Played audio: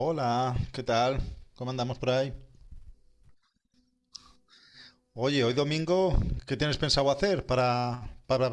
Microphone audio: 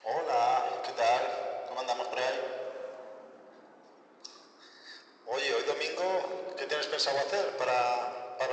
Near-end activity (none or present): none